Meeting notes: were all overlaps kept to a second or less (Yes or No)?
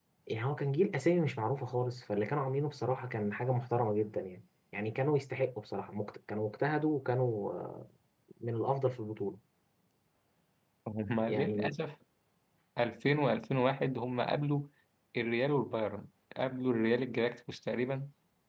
Yes